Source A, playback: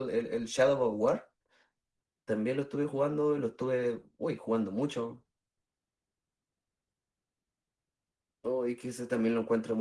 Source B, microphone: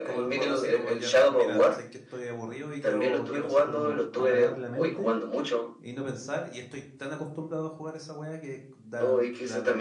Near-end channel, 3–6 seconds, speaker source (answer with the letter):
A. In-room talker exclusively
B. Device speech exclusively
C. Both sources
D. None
C